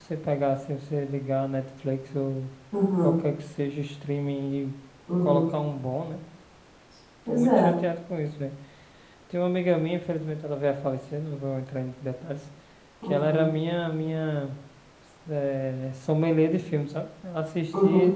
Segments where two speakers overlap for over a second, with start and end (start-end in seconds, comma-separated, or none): none